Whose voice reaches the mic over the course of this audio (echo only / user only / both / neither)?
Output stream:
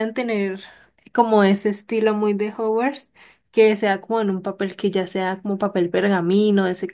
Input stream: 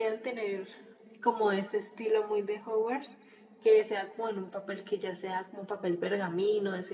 echo only